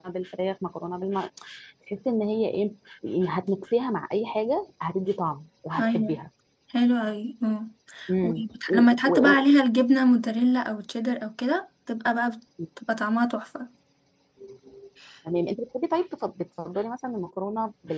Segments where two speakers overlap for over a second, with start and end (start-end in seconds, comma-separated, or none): 8.2-9.4